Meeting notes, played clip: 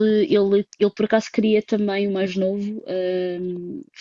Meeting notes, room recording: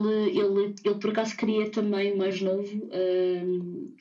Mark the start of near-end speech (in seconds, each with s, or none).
none